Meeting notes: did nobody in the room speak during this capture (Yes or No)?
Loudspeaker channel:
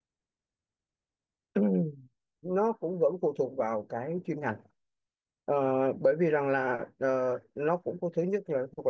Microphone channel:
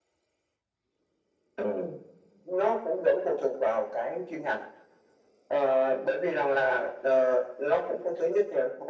Yes